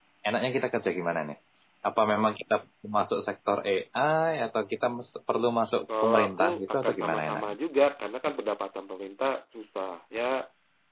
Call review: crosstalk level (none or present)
present